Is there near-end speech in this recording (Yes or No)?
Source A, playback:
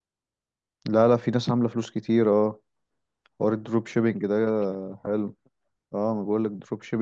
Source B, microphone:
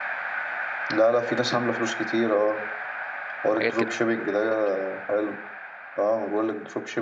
Yes